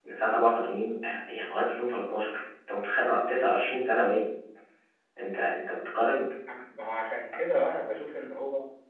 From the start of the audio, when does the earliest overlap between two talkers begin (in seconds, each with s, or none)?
none